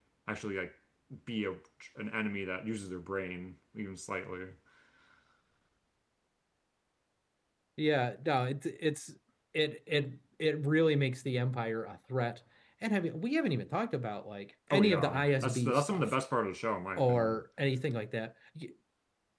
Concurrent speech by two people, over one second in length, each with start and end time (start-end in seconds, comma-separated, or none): 14.7-16.2